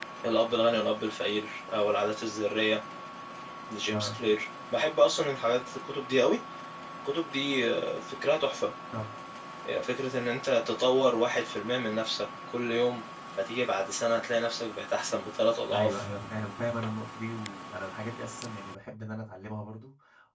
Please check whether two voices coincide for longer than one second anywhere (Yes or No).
No